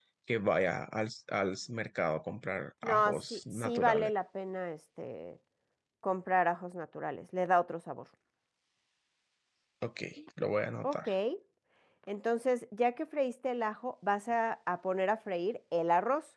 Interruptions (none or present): present